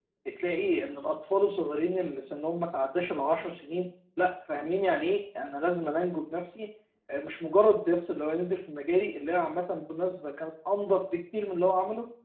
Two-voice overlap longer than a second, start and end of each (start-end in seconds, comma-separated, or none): none